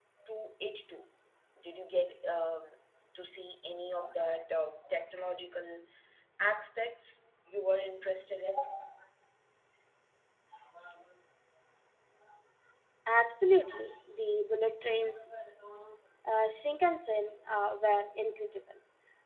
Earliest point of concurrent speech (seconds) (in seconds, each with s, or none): none